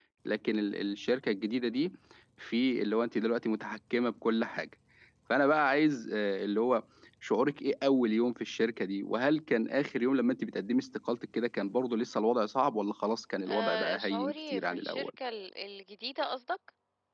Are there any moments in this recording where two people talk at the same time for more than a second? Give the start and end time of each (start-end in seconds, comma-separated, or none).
13.5-15.1